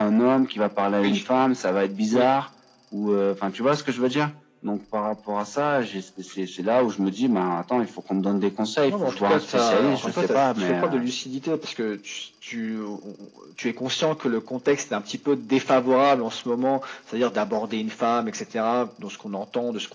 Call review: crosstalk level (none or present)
present